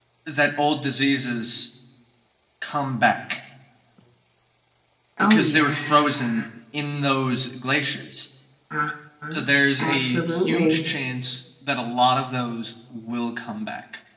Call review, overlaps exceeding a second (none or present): present